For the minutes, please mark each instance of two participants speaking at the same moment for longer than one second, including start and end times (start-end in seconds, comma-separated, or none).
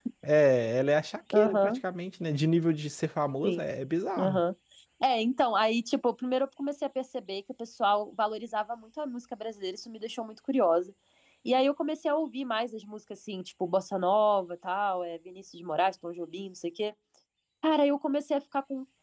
none